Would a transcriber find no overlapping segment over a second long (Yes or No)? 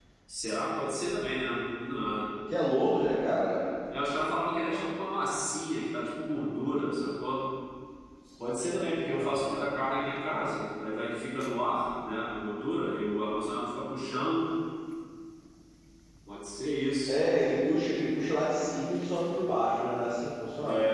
Yes